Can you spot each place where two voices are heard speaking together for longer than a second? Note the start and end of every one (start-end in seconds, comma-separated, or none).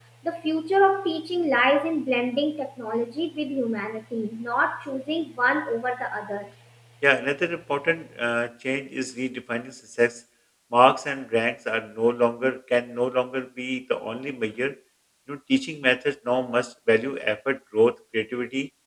none